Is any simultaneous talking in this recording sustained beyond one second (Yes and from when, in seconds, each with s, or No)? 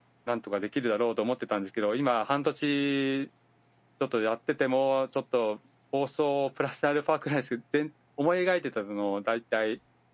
No